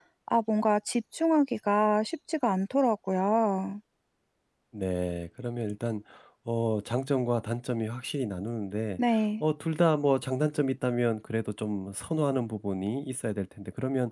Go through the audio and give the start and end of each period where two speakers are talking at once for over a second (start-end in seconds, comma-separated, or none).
none